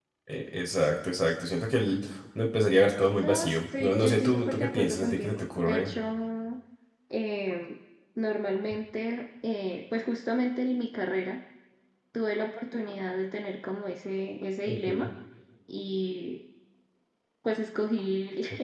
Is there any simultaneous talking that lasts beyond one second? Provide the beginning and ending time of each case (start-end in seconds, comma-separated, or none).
3.2-5.9